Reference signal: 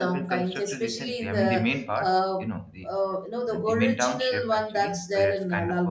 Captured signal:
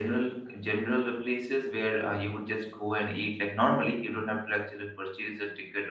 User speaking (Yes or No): Yes